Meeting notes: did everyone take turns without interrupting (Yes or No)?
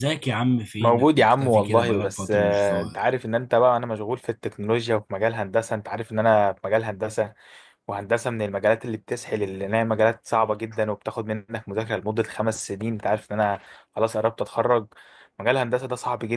No